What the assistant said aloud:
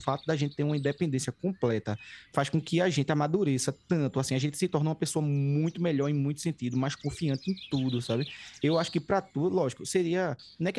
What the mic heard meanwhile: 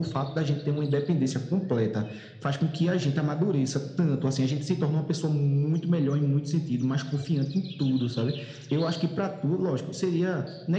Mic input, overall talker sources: echo only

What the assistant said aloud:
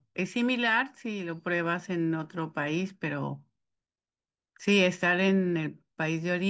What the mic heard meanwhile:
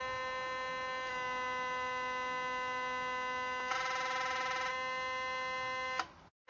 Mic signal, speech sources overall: neither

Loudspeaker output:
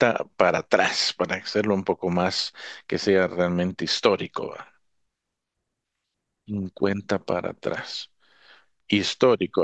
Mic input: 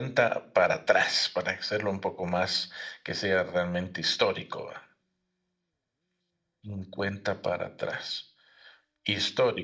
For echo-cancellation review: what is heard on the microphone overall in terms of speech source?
echo only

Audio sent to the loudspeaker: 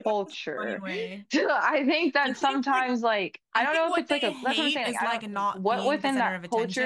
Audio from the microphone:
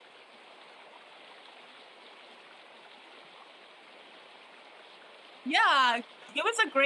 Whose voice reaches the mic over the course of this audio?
user only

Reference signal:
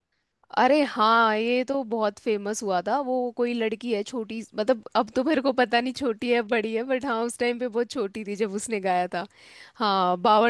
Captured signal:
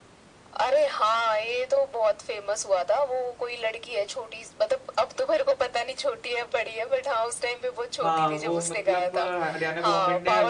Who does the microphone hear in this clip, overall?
both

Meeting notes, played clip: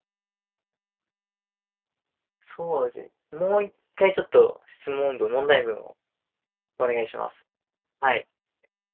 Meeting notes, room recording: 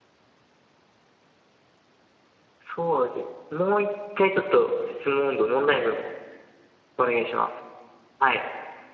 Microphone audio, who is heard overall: echo only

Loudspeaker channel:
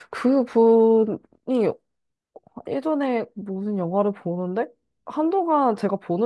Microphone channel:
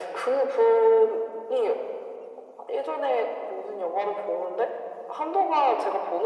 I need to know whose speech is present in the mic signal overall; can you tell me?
echo only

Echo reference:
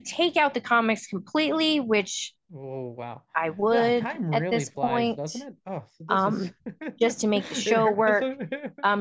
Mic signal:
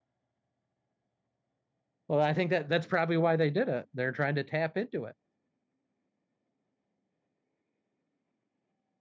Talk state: user only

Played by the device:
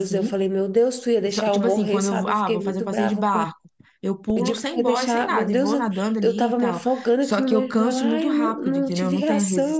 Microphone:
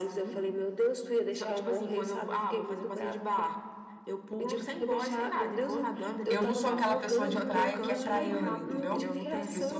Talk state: both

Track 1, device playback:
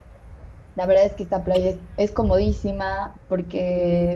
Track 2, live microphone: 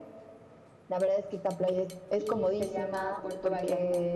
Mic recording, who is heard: both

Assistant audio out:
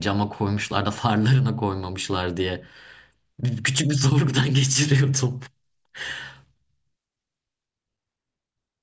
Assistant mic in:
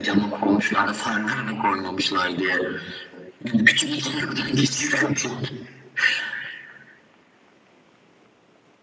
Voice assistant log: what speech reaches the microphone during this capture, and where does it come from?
echo only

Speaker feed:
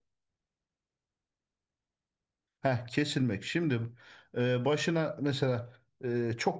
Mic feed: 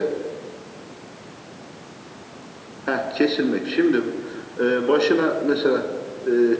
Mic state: echo only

